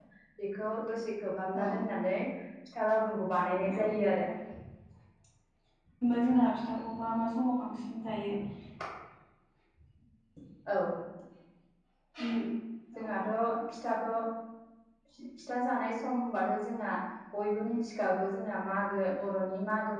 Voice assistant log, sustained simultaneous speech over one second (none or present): none